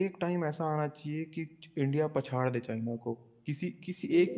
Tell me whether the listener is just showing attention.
No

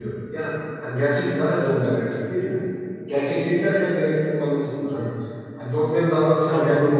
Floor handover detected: No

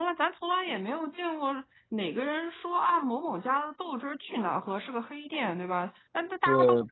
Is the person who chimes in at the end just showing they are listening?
Yes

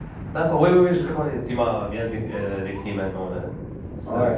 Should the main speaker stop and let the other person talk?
Yes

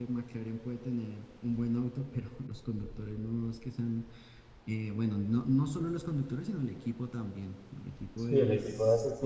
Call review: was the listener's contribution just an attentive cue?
No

